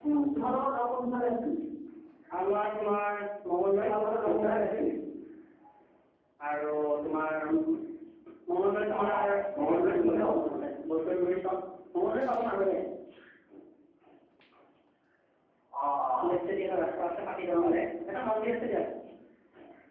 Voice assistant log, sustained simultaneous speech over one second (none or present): present